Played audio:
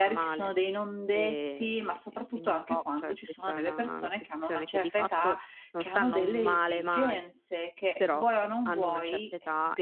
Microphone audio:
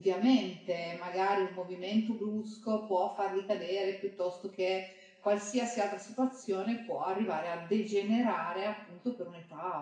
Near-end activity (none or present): present